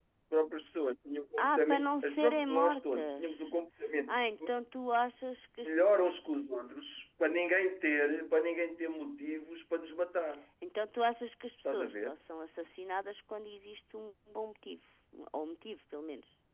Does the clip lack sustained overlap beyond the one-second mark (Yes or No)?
No